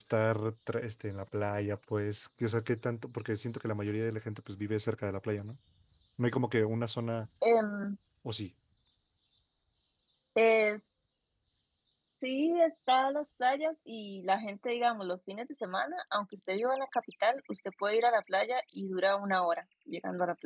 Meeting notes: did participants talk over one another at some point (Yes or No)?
No